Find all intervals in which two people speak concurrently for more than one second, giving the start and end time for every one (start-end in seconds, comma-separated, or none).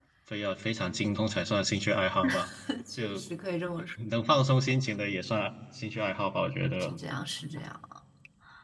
none